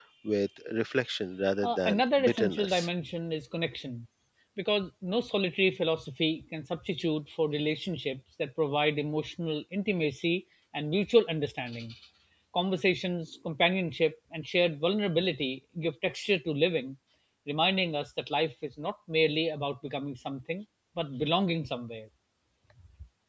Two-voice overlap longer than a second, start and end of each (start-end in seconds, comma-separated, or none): 1.6-2.9